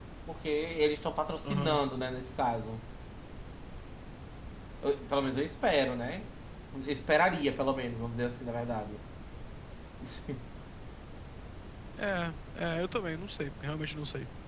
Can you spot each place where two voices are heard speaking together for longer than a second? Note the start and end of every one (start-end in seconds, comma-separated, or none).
none